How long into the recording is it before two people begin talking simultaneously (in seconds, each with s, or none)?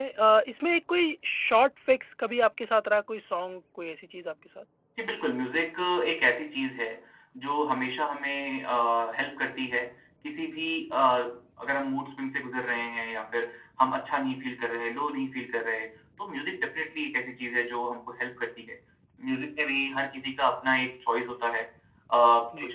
none